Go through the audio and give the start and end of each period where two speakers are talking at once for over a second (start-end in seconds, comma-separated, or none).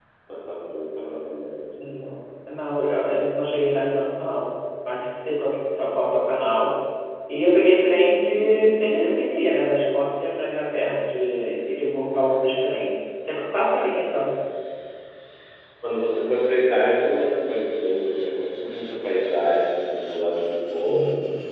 none